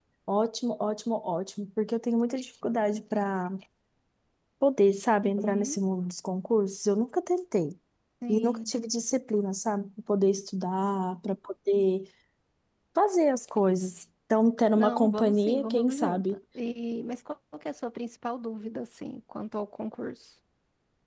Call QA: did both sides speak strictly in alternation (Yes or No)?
No